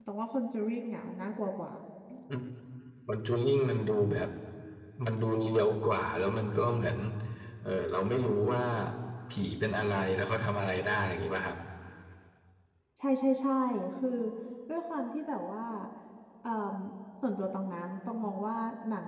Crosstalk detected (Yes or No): No